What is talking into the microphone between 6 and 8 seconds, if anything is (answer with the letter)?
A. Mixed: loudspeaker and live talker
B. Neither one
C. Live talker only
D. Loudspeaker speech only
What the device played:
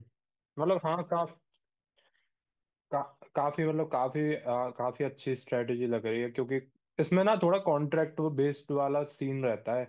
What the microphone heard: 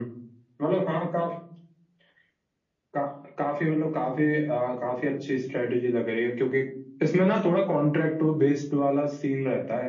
D